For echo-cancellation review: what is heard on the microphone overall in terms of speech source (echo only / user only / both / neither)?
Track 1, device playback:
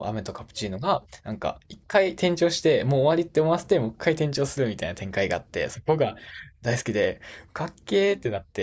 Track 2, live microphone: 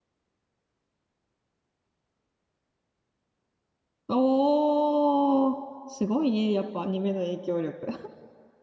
user only